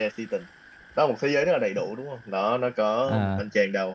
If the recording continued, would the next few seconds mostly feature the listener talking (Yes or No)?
No